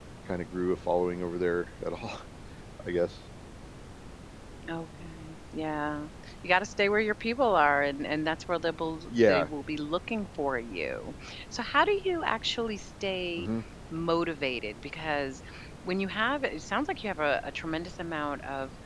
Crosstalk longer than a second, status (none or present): none